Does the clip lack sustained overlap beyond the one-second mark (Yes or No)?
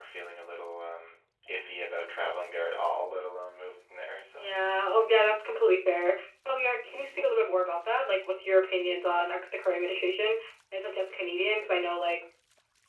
Yes